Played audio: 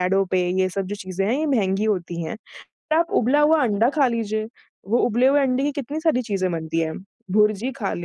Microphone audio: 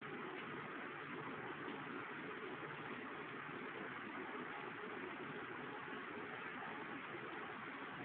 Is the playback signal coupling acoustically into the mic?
No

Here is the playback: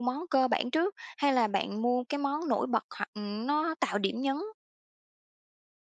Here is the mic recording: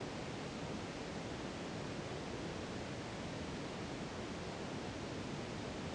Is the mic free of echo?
Yes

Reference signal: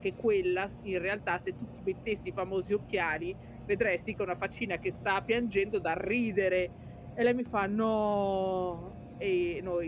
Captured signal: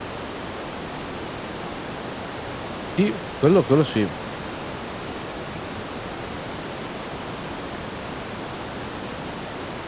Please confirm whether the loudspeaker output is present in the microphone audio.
No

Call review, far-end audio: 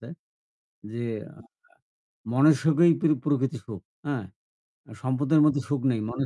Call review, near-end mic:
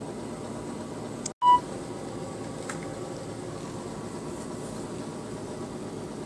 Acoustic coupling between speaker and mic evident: No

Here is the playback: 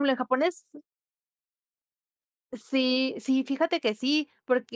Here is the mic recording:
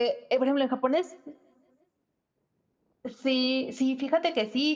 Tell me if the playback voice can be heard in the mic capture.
Yes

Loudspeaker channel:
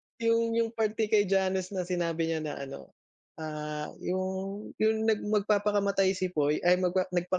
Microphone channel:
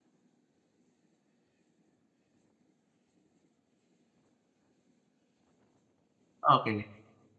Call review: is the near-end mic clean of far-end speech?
Yes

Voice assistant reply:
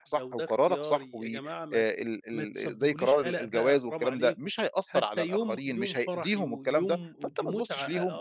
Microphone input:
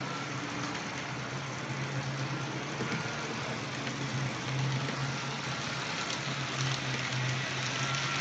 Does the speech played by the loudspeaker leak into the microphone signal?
No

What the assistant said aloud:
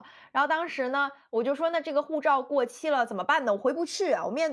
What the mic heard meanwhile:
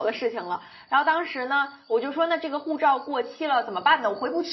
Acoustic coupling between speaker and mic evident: Yes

